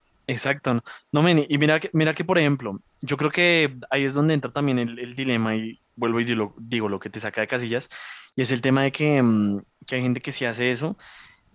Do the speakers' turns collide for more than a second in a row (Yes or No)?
No